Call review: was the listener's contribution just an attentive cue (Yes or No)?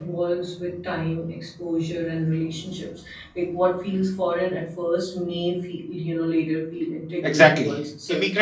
No